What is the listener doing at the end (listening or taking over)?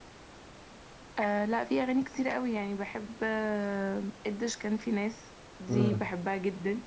listening